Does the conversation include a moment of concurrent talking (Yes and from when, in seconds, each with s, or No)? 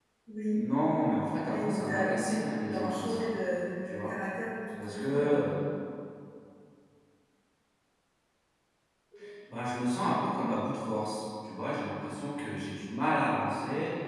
Yes, from 1.5 s